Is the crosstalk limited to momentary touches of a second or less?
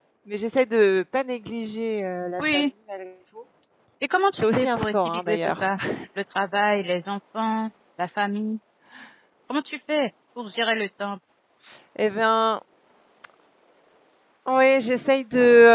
No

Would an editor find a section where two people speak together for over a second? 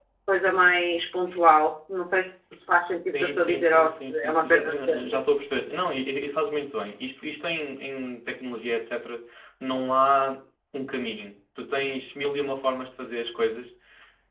Yes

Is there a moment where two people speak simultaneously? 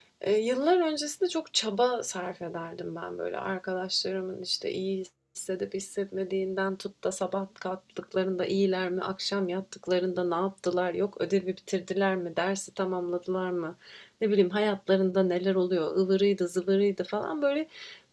No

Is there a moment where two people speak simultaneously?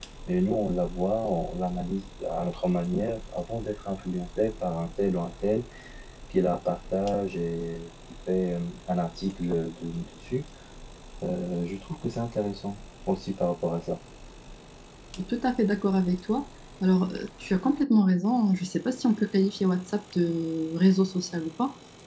No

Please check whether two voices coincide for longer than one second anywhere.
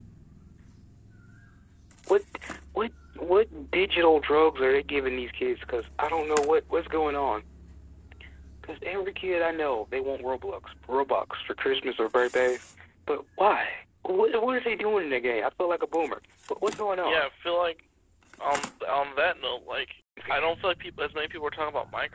No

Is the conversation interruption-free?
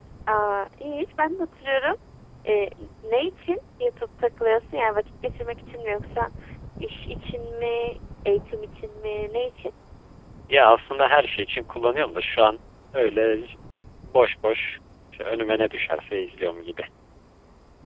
Yes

